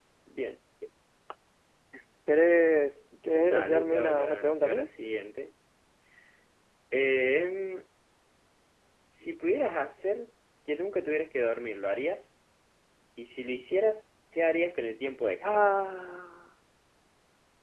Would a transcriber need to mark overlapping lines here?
Yes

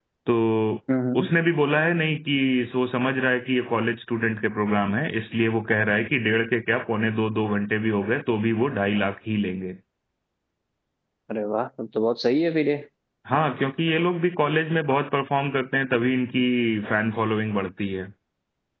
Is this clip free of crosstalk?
Yes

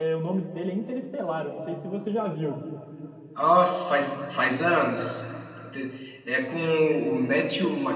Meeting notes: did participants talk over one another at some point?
No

